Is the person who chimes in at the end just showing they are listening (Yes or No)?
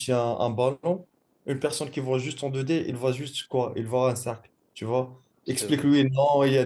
Yes